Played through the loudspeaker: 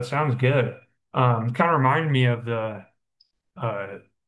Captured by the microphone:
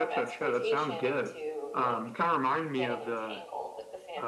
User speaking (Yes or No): Yes